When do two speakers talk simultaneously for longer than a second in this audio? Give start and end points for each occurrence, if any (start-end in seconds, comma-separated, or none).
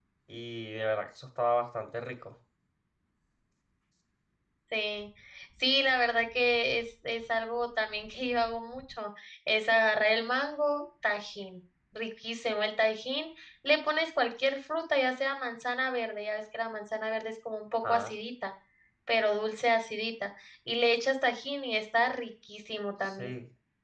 none